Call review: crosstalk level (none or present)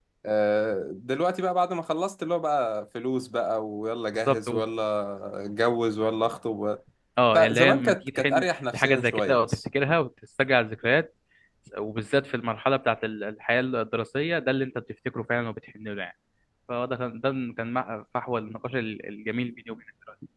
present